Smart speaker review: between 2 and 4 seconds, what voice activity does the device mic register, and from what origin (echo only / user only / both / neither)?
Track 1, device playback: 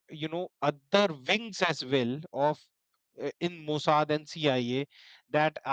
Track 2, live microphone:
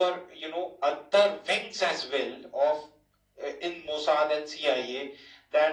echo only